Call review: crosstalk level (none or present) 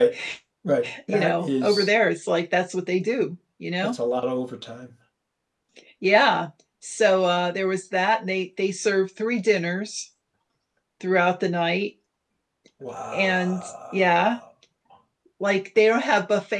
present